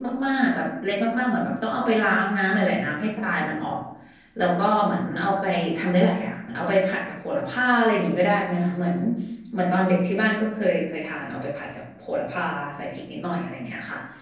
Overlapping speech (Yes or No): No